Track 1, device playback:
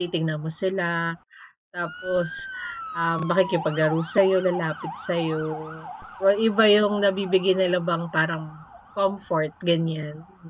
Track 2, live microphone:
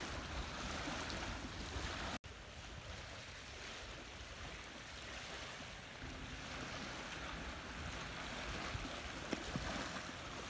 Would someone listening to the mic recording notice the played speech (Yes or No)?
No